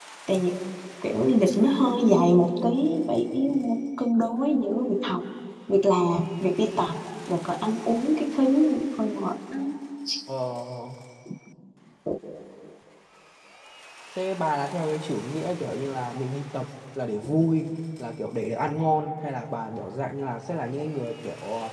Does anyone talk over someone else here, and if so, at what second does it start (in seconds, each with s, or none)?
none